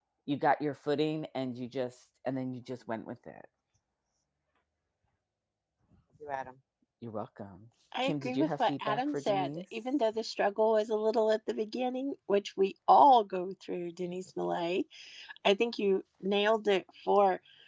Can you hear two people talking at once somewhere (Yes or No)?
Yes